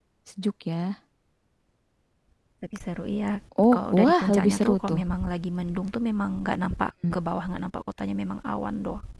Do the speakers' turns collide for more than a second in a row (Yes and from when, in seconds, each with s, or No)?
Yes, from 3.7 s